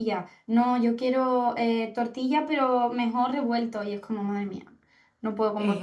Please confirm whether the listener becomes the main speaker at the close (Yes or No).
Yes